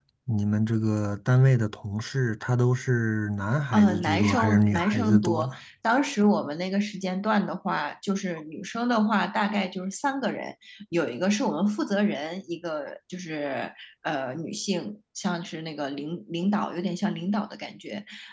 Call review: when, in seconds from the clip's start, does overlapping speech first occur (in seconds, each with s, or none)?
3.7 s